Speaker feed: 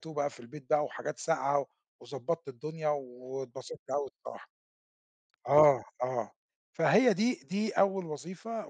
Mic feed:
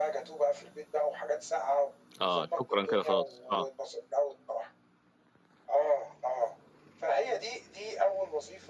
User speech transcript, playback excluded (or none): آه شكرًا كده خلاص، آه.